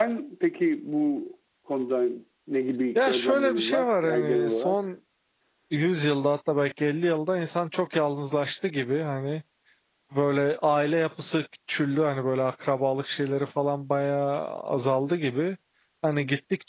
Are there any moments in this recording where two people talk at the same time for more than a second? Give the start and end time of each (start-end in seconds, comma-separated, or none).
3.0-4.8